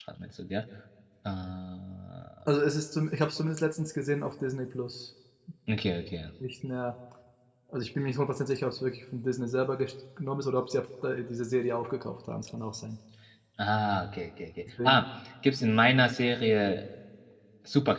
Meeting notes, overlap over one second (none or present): none